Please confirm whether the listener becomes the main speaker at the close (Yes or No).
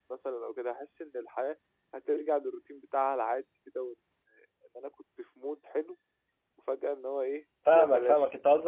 Yes